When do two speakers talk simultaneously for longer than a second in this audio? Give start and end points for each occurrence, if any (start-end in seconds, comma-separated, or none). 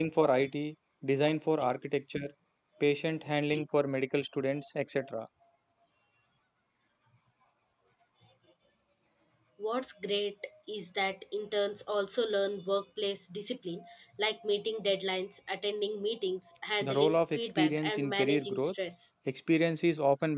16.8-18.7